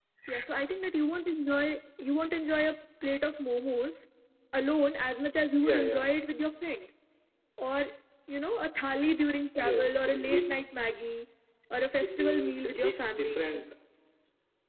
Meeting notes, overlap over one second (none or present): present